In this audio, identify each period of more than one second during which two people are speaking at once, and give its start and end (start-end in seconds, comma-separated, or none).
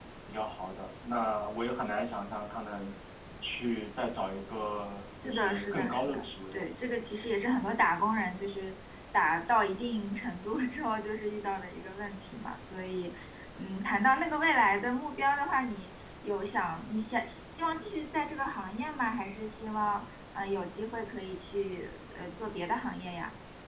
5.2-6.7